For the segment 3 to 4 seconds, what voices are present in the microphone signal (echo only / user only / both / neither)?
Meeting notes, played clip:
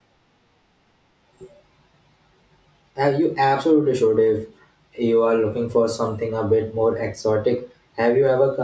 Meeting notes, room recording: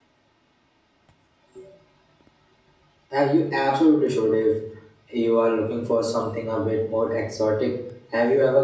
echo only